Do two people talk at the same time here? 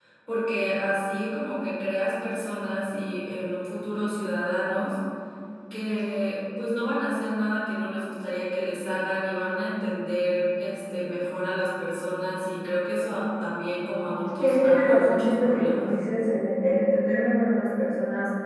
Yes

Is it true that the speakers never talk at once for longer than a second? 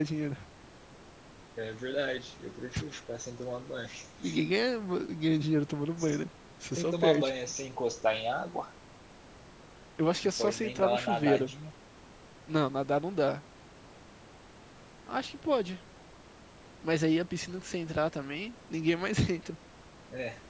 No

